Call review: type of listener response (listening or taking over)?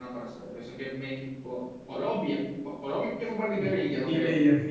taking over